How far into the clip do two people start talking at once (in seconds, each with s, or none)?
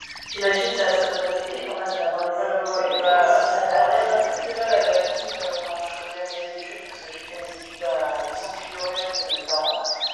2.4 s